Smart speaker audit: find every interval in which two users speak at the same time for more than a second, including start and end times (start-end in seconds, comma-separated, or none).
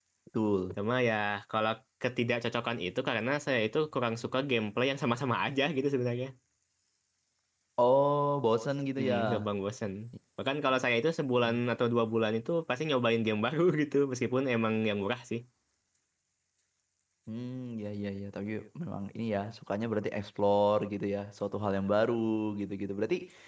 none